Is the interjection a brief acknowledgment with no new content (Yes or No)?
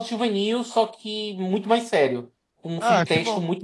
No